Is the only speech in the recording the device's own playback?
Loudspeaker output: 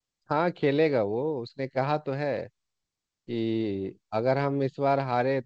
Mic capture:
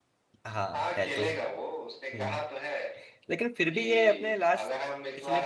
No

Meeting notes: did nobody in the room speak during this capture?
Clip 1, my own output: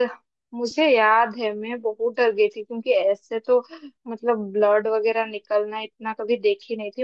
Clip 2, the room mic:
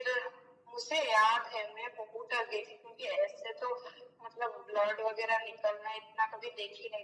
Yes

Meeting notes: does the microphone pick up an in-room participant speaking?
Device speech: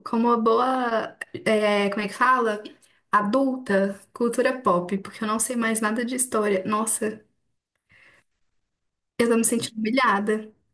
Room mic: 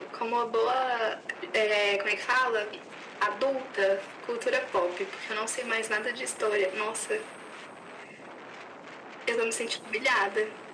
No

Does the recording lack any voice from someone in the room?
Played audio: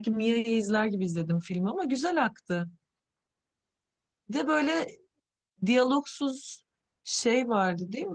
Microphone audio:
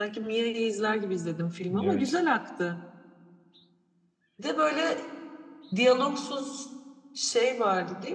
No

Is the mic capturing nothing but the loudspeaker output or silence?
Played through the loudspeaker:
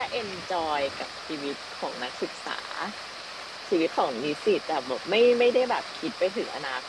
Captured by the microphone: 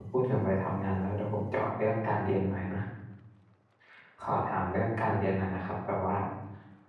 No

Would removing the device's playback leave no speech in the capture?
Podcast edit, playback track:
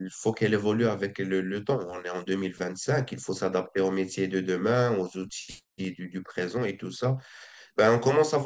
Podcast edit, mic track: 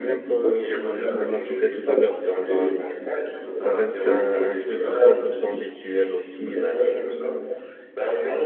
No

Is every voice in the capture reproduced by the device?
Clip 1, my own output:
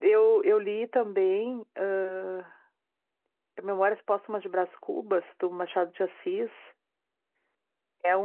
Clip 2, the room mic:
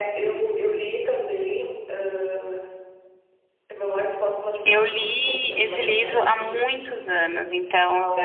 No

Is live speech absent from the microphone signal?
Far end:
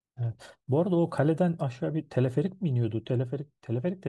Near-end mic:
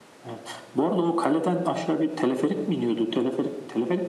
Yes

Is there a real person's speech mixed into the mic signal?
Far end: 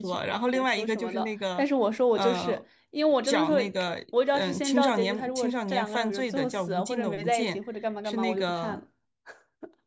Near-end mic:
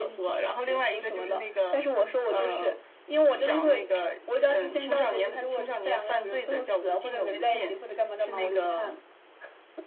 No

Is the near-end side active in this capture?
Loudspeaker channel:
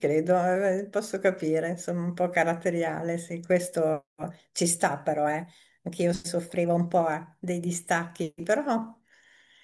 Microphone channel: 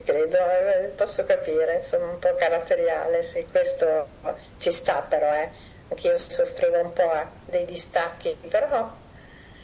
No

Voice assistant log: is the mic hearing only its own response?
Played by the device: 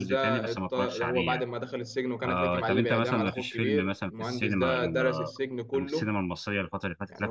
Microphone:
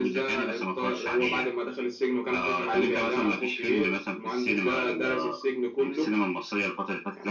Yes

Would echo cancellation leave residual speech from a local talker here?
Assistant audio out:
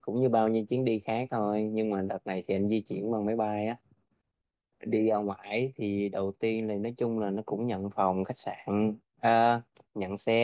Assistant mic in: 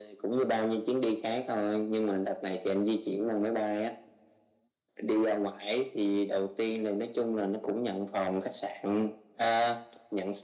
No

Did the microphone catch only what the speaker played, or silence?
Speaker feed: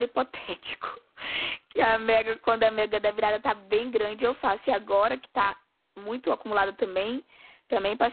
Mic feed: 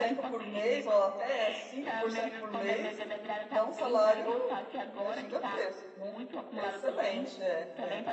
No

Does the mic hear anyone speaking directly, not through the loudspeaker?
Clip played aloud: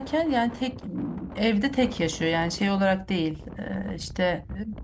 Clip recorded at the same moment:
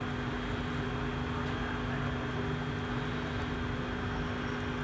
No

